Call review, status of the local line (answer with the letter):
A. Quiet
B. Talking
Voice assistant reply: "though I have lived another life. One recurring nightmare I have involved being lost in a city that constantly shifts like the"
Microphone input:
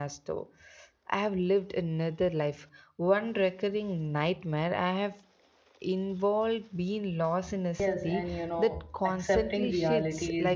B